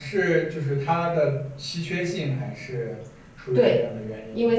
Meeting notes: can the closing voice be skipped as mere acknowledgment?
No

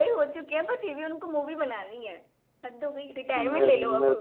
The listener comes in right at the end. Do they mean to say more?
Yes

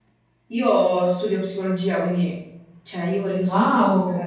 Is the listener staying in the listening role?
Yes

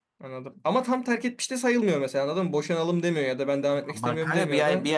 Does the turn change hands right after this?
Yes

